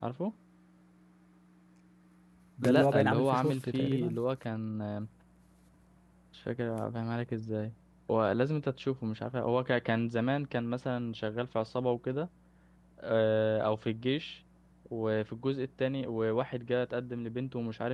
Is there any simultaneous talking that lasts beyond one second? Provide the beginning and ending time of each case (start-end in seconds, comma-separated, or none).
2.6-4.2